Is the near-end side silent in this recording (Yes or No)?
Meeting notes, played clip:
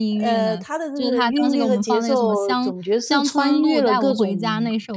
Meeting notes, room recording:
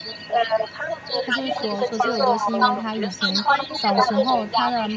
No